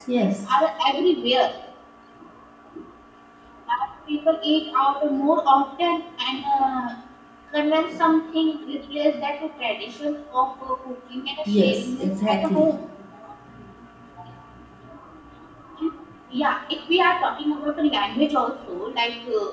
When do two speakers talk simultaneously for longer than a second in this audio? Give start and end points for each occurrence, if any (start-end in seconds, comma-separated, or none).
11.5-12.8